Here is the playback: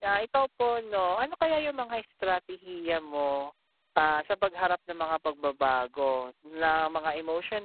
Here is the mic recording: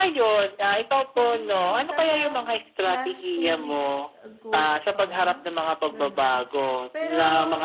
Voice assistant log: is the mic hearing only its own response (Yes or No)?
No